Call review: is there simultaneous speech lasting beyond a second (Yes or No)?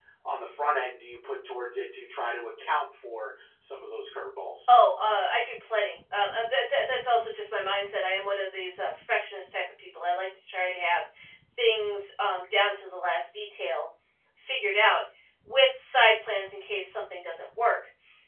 No